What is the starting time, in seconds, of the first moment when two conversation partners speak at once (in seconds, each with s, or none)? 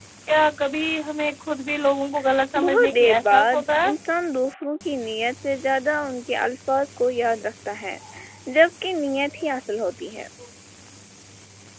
2.5 s